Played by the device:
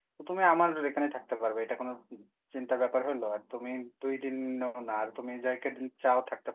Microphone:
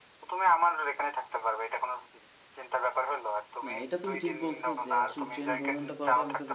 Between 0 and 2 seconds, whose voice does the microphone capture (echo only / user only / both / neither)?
echo only